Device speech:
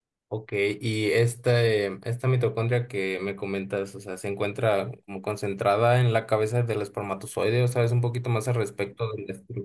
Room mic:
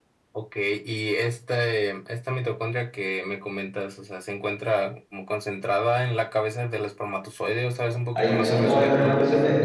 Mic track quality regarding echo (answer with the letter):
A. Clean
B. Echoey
B